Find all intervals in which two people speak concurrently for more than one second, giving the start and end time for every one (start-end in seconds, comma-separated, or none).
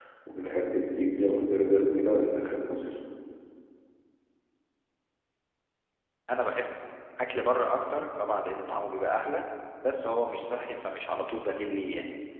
none